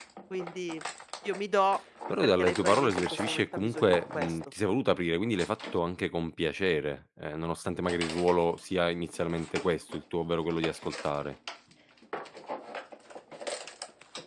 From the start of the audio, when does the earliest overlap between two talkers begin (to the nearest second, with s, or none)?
2 s